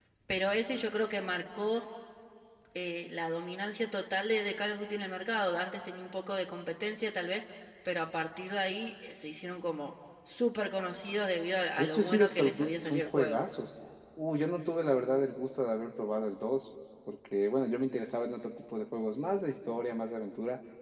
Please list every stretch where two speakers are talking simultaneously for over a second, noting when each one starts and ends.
11.8-13.4

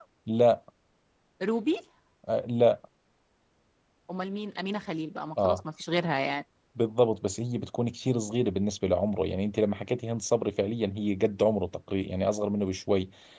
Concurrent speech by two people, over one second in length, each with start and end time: none

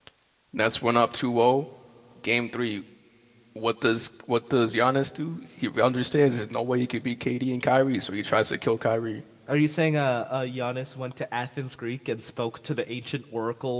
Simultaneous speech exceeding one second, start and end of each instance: none

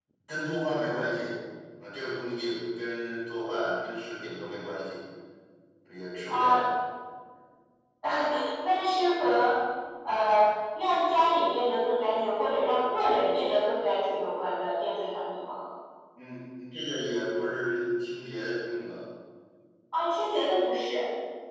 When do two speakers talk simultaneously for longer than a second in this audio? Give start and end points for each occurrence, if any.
none

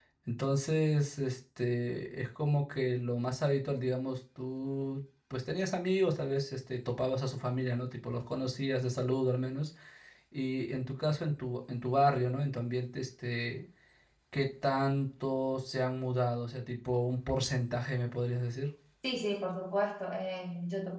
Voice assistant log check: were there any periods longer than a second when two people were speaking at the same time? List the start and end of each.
none

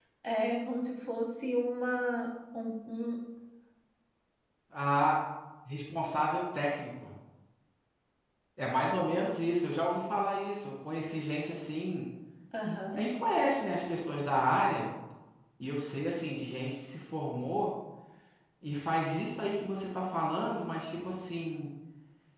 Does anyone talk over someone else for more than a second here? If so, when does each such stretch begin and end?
none

